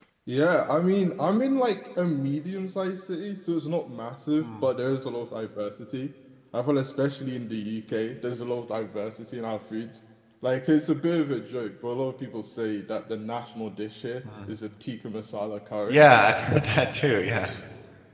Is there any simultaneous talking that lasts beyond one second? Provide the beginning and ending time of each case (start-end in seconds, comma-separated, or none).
none